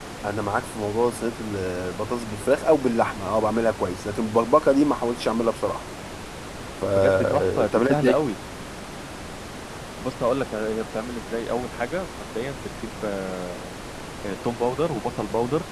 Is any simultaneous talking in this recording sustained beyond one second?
Yes, from 6.9 s

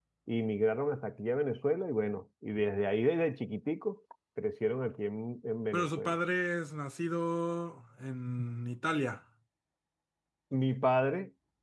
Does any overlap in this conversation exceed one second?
No

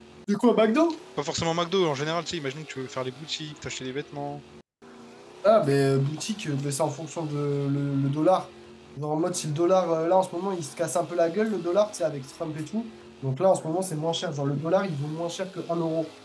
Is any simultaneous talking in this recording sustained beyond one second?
No

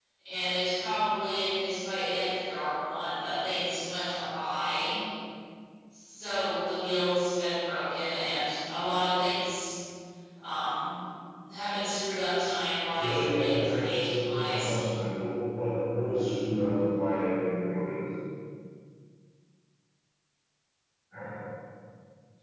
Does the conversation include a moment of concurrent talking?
Yes, from 12.9 s

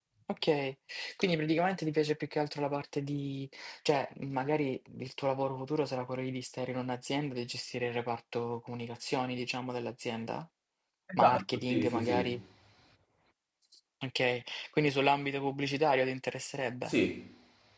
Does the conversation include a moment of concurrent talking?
Yes, from 11.2 s

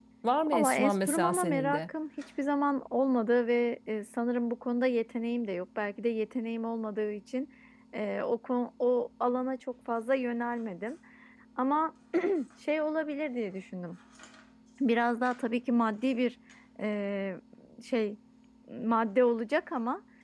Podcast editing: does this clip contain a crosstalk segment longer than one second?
Yes, from 0.5 s

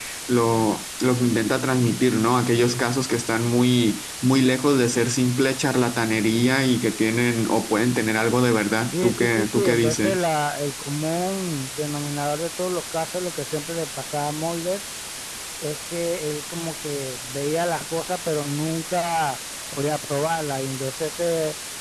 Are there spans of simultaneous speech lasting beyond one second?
Yes, from 8.9 s

